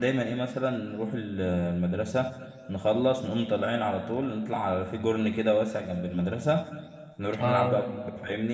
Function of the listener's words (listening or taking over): listening